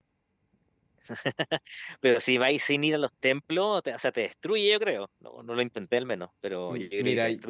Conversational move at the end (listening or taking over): taking over